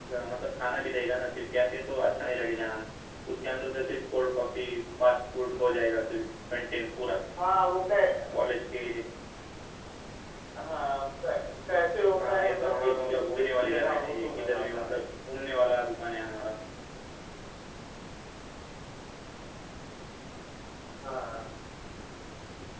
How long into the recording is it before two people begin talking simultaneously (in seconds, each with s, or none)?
12.2 s